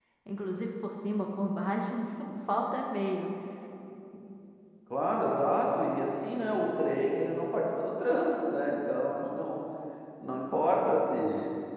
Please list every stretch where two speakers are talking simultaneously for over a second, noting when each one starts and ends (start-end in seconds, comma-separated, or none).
none